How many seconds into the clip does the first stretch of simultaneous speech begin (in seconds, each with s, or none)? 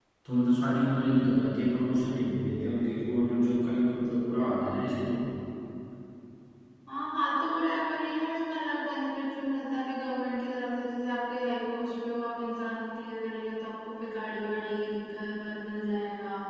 none